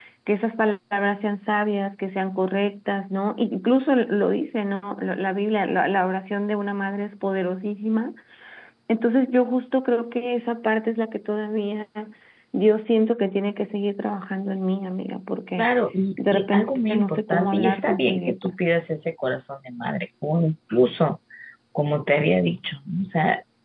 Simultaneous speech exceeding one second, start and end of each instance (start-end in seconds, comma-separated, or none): 16.3-18.6